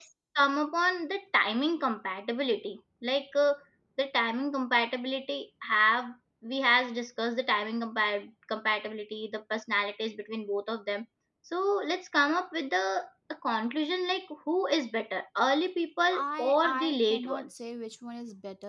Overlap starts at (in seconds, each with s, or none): 16.1 s